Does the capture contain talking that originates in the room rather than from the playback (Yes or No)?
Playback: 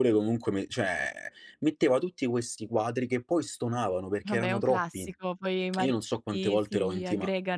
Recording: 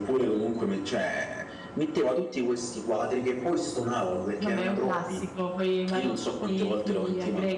No